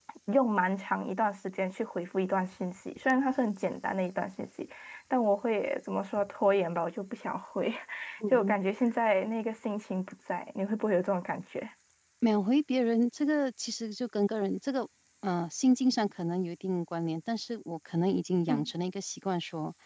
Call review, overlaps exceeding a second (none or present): none